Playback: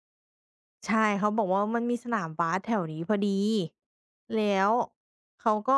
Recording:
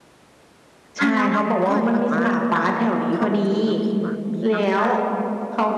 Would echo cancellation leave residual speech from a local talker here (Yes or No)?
Yes